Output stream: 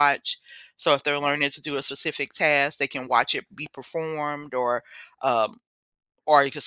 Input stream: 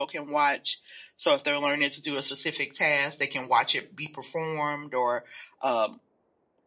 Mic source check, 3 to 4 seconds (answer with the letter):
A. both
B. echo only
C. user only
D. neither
B